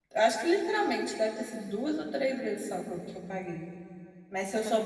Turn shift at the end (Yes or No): Yes